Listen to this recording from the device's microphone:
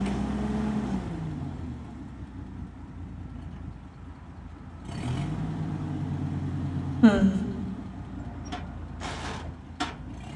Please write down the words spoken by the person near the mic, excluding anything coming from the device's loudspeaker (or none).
mm,